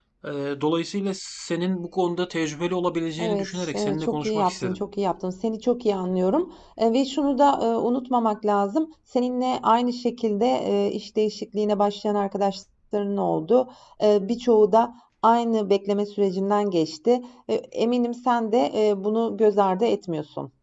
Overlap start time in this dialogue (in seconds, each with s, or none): 3.2 s